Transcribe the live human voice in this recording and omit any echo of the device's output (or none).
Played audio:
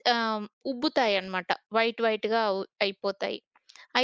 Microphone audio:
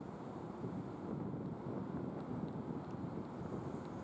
none